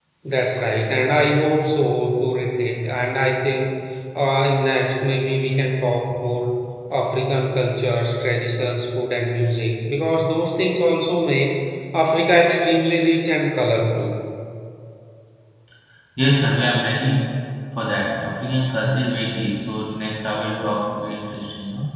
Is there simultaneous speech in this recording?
No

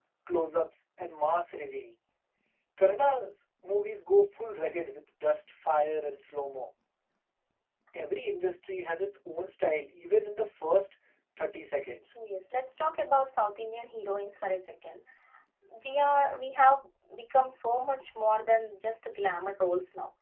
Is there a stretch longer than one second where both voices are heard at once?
No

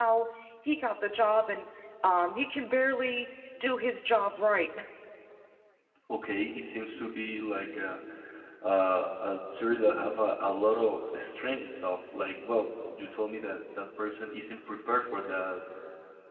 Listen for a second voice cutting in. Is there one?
No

